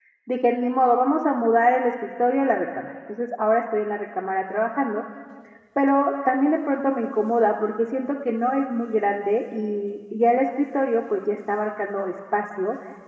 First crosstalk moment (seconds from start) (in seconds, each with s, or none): none